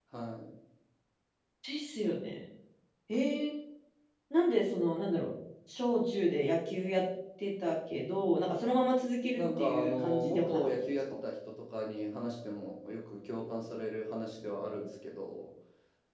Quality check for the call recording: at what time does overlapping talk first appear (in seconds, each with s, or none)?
9.4 s